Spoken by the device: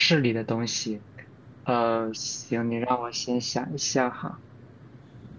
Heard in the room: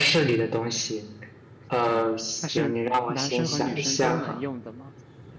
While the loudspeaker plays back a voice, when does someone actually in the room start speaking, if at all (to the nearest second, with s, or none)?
2 s